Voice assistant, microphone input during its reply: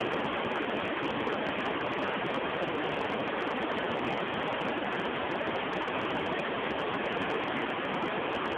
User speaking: No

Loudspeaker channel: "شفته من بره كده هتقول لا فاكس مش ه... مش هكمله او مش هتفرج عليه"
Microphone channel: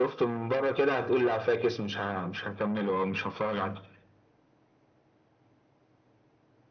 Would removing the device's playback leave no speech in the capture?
Yes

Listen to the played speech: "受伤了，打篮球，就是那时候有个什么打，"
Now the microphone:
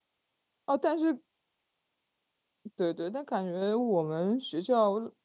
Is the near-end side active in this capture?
Yes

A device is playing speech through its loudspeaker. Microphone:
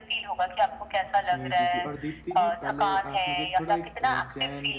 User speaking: Yes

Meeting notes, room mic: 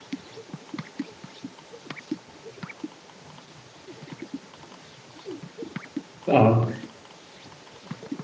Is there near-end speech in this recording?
Yes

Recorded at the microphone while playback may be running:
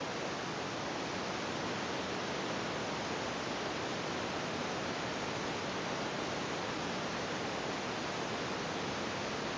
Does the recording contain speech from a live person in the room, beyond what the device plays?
No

